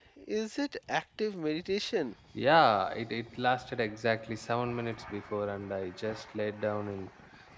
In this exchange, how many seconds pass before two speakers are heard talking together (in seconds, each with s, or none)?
none